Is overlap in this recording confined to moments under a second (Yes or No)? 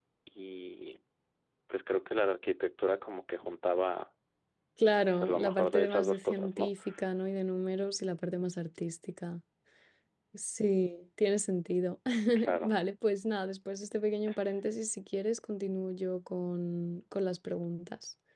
No